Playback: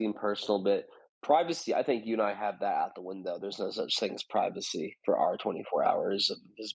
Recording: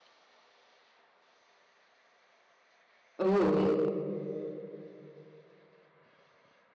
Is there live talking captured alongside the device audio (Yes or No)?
Yes